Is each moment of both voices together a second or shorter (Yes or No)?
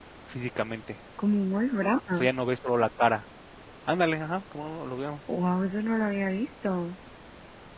Yes